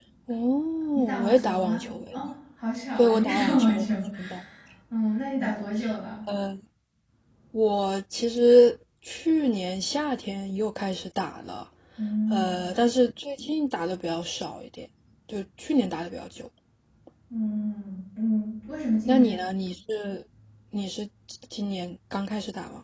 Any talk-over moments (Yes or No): Yes